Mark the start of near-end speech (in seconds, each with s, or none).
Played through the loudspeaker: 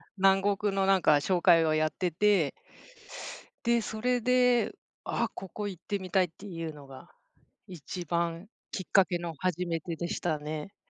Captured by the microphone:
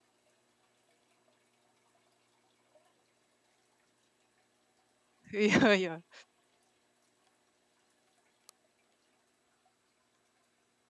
5.3 s